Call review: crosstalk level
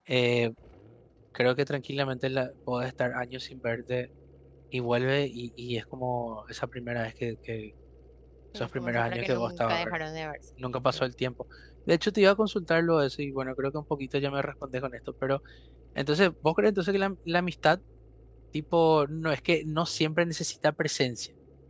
present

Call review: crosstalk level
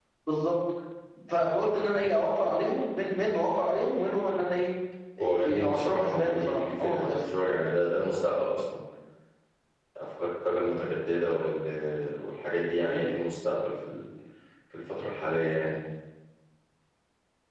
present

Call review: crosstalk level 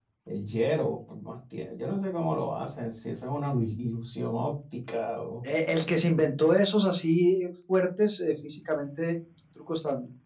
none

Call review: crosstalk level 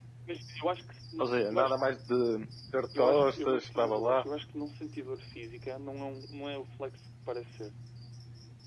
present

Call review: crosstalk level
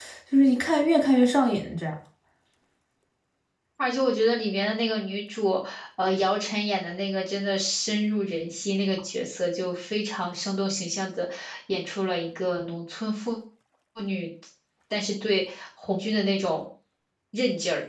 none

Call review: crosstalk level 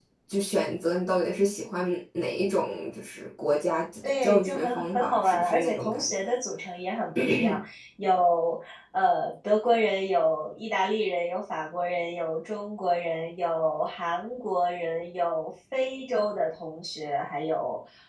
present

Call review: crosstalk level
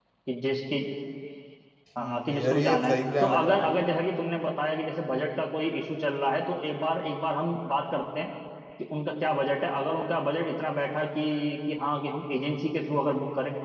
present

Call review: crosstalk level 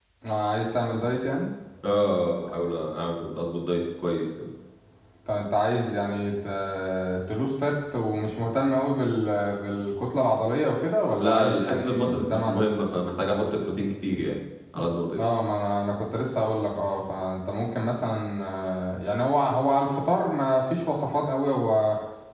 present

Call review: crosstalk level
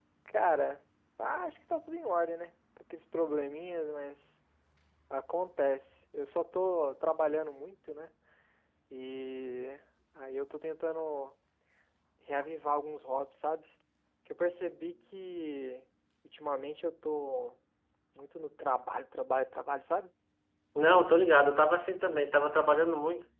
none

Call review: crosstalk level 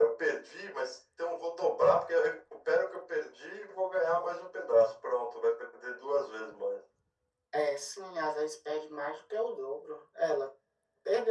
none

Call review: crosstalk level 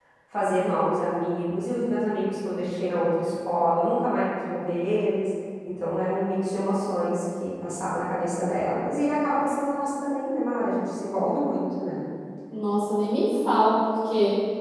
none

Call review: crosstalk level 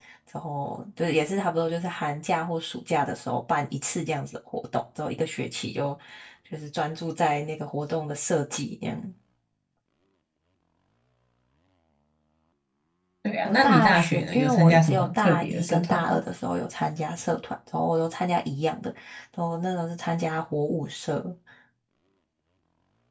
present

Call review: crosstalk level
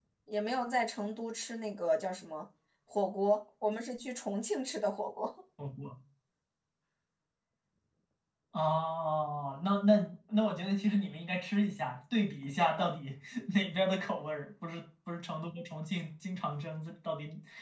none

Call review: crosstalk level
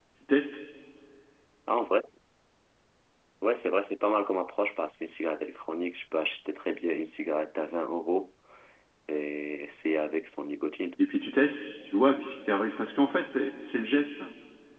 none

